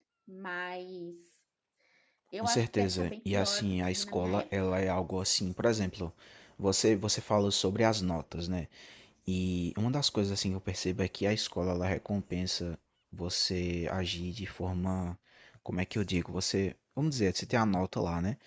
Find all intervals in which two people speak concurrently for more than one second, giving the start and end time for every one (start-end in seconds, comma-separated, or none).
2.4-4.4